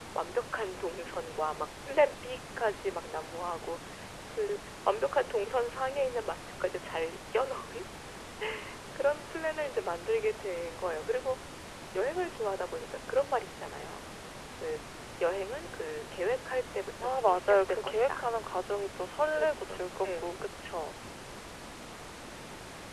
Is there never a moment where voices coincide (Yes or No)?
No